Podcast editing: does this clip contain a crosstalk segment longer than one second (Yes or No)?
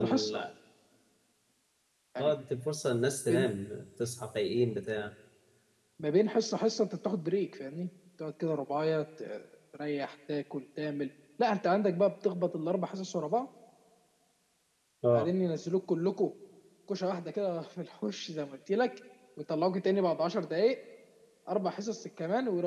No